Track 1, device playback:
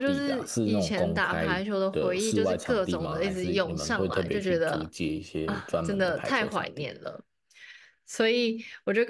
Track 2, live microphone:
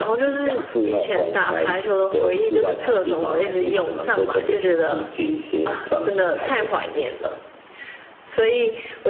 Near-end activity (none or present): none